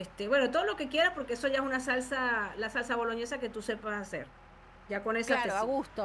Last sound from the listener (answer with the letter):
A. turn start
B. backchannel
A